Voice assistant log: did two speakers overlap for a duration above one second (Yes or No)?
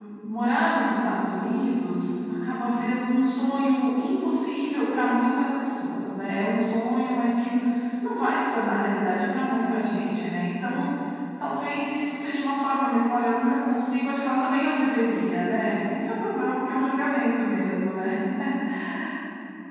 No